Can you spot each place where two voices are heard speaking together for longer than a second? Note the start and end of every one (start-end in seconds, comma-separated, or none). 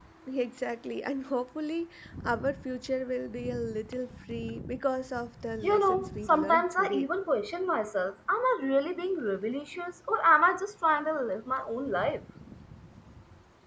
5.6-7.1